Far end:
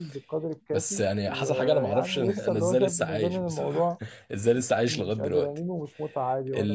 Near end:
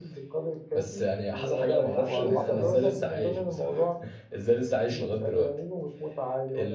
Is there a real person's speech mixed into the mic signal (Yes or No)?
Yes